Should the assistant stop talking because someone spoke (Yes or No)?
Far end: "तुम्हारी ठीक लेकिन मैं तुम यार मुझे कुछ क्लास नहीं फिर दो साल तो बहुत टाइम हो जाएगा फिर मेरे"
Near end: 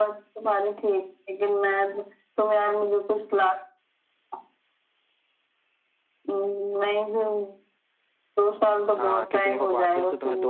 Yes